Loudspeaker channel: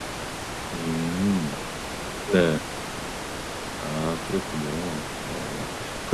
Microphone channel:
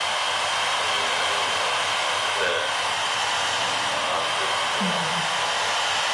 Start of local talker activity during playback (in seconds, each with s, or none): 4.8 s